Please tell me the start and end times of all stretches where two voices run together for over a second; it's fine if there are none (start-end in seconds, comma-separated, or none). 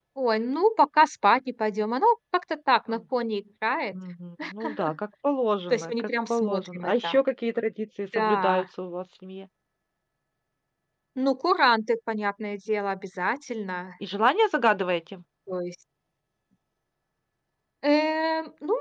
5.7-7.2